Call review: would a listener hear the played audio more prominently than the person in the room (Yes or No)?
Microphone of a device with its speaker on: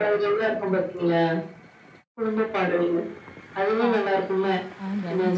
Yes